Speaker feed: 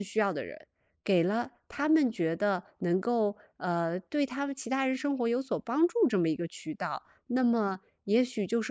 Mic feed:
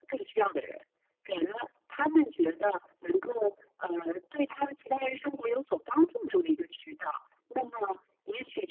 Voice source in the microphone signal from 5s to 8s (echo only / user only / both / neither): echo only